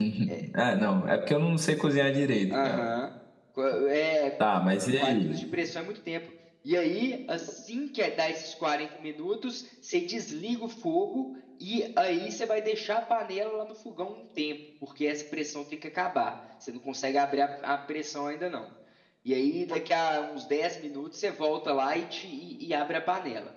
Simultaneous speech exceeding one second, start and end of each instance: none

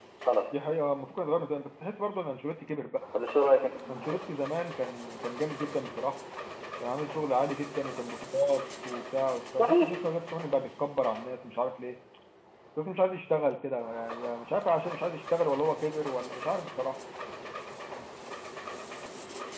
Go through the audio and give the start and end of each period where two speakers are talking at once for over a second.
none

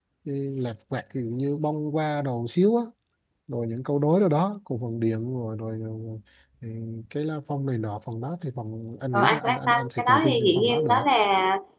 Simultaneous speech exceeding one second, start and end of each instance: 9.1-11.0

